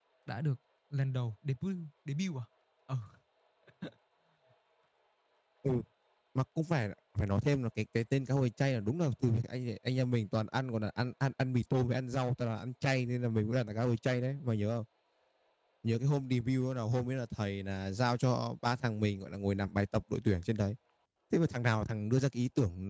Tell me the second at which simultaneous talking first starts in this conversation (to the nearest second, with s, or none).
none